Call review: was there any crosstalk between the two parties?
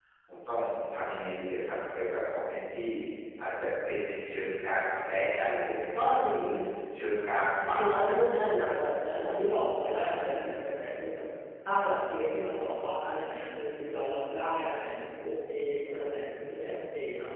Yes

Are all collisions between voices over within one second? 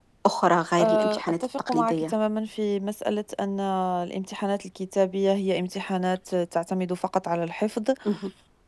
No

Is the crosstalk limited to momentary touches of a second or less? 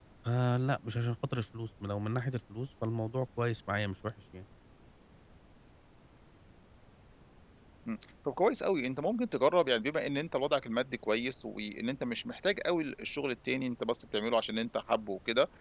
Yes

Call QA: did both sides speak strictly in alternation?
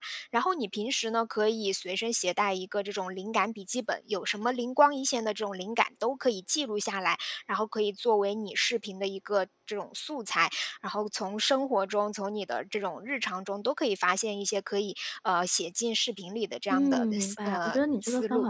No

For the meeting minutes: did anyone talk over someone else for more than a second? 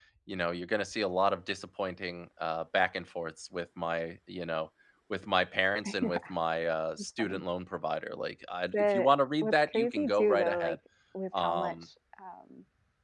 Yes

